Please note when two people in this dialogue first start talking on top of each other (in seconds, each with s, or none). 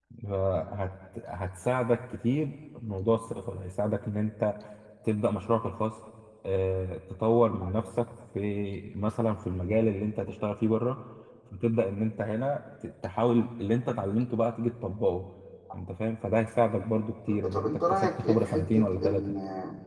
17.3 s